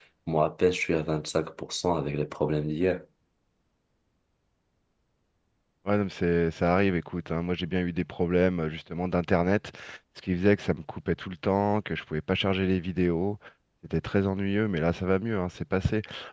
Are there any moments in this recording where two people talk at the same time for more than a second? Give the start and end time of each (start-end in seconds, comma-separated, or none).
none